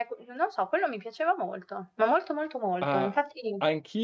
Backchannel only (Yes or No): No